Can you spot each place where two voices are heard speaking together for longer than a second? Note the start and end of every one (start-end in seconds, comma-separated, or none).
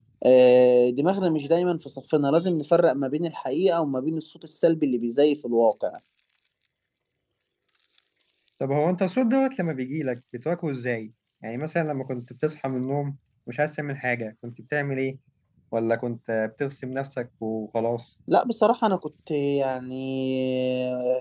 none